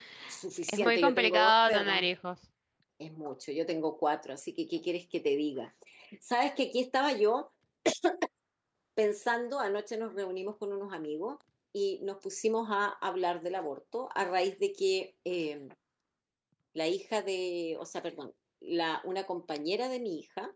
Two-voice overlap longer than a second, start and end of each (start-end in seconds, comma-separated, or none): 0.7-2.1